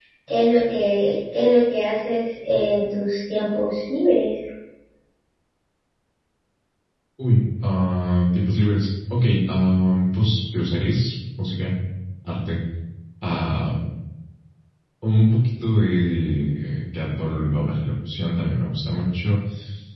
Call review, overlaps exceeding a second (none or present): none